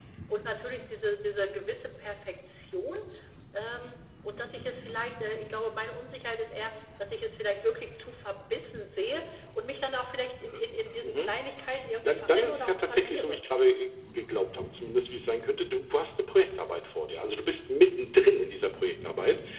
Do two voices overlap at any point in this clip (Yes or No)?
Yes